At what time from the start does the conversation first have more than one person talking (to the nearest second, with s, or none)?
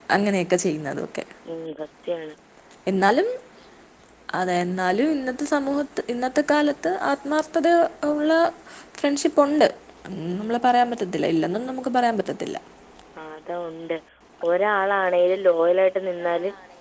none